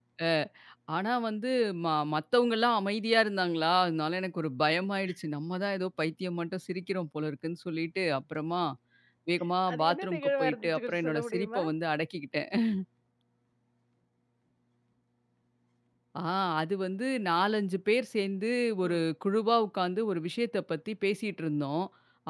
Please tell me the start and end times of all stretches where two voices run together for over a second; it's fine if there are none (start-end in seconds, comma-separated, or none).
9.7-11.6